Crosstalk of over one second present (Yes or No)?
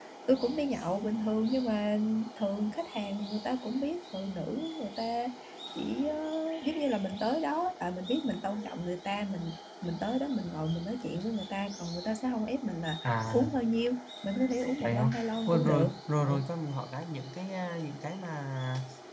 Yes